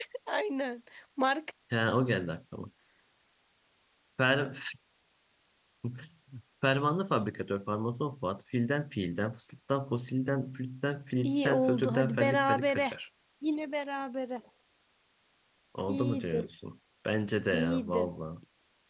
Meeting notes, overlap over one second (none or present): present